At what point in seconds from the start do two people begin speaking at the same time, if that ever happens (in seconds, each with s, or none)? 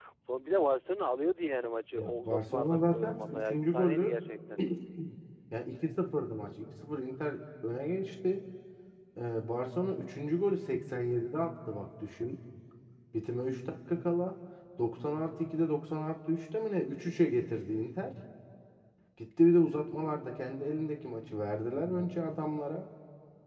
2.0 s